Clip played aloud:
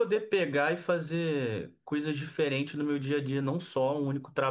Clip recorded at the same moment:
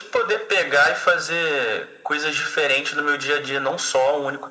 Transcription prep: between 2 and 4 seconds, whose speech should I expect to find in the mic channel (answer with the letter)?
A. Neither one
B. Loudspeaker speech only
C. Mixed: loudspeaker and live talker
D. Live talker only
B